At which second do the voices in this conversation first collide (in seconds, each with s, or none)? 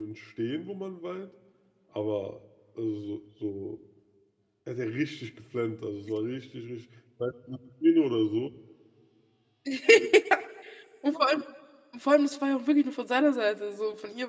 none